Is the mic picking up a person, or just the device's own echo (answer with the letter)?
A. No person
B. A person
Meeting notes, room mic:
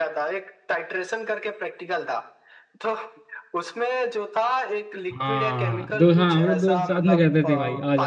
B